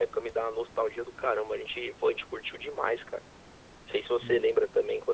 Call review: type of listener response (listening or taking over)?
listening